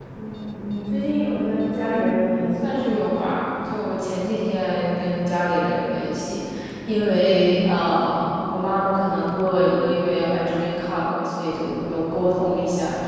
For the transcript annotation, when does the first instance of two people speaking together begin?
1.7 s

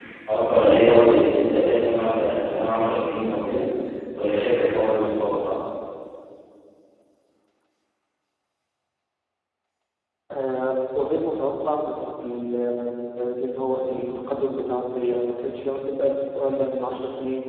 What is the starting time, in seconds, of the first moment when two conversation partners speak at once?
none

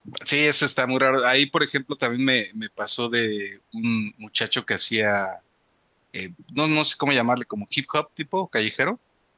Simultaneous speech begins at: none

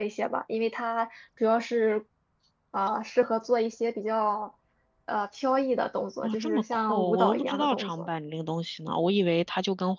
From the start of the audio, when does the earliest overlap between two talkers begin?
6.2 s

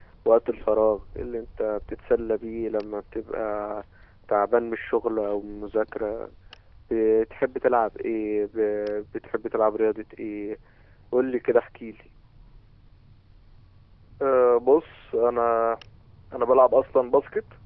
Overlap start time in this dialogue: none

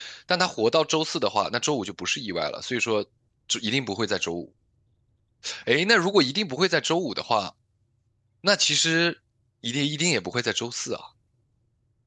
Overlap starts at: none

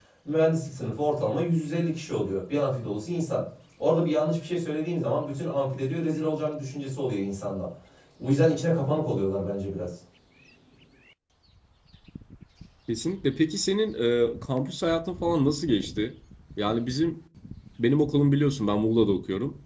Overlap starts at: none

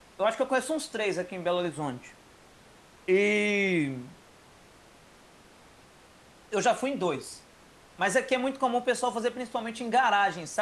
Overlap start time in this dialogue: none

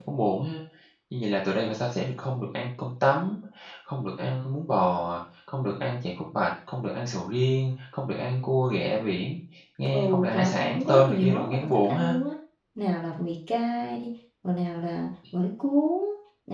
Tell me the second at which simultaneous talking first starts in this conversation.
9.9 s

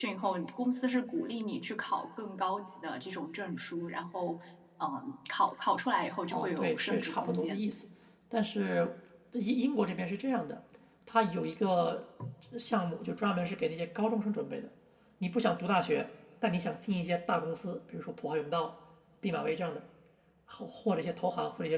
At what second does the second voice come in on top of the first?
6.3 s

